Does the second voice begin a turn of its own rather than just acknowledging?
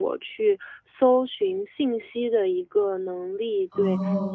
No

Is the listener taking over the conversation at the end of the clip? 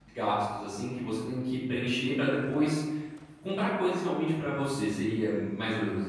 Yes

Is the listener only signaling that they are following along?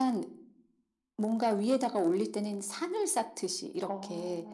Yes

